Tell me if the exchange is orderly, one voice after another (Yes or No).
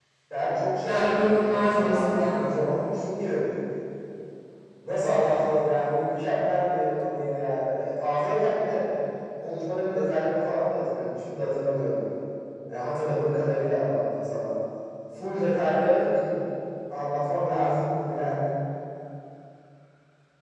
No